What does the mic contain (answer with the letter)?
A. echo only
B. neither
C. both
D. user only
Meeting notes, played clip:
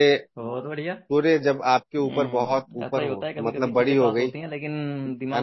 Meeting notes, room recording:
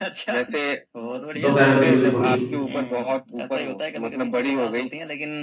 C